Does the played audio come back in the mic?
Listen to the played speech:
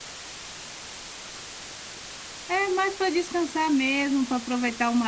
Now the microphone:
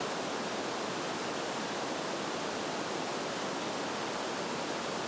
No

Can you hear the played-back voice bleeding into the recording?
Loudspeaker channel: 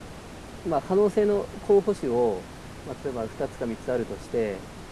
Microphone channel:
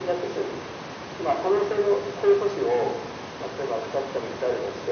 Yes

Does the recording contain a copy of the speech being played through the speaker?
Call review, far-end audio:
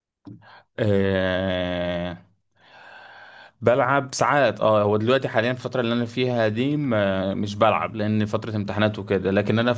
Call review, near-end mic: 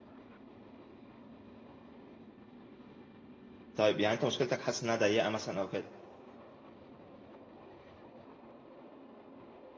No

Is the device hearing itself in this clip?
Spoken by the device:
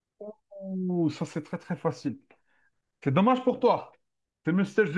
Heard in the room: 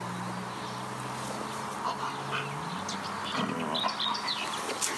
No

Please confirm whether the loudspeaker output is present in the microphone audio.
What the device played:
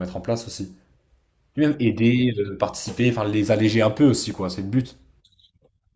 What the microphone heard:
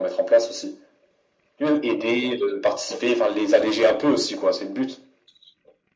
Yes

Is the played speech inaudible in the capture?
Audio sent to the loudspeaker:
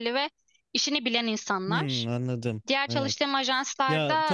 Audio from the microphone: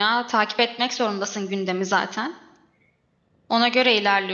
Yes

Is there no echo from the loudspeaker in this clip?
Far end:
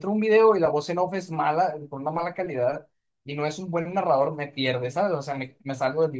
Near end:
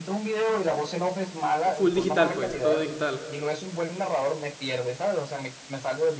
No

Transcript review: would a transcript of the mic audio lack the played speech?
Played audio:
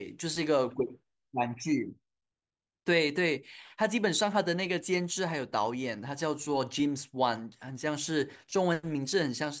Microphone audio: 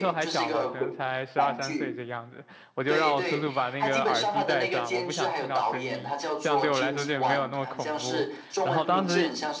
No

